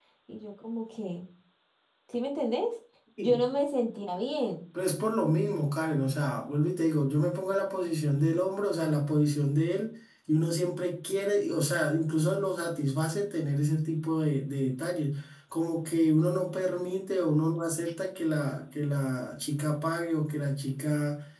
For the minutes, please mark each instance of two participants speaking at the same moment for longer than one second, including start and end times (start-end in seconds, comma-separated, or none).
none